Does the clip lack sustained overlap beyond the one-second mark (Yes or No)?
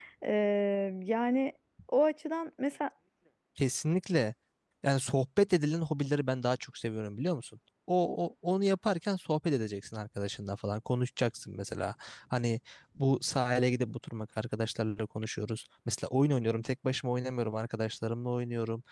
Yes